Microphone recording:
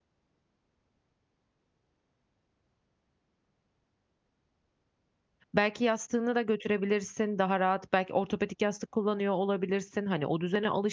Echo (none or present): none